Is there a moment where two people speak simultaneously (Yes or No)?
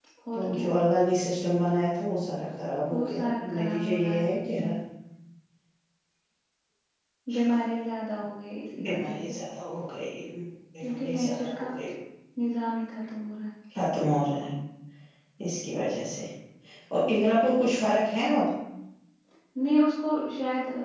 Yes